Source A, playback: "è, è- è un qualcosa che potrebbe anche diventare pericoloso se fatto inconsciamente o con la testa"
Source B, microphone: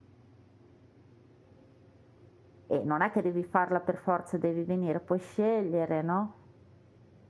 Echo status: none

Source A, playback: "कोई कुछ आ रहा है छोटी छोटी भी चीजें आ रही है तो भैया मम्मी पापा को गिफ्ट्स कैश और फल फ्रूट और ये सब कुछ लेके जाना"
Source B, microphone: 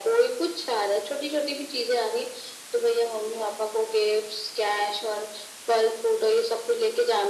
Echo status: present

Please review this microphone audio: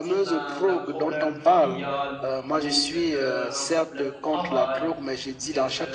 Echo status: present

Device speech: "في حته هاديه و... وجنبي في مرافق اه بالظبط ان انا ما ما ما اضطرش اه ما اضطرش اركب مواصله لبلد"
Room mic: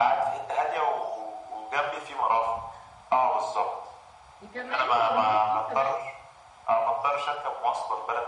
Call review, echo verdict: present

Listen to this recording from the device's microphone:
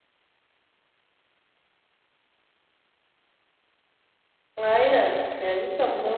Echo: none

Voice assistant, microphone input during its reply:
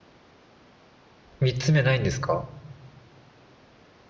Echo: none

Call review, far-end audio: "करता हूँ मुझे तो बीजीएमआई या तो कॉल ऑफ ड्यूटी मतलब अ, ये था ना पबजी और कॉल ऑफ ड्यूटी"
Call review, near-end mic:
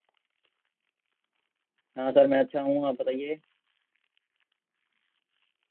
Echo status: none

